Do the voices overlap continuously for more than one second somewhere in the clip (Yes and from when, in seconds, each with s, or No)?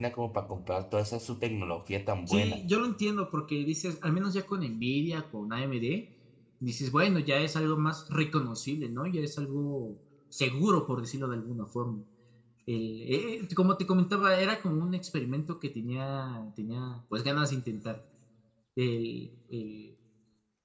No